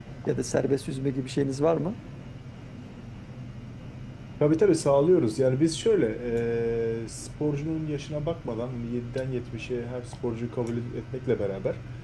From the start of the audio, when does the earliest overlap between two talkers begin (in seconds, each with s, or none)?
none